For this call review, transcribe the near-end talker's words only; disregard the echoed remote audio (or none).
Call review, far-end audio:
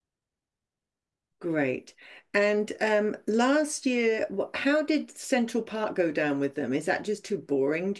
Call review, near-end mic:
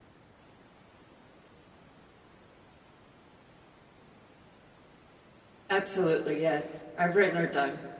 Absolutely, yes. I've written her down.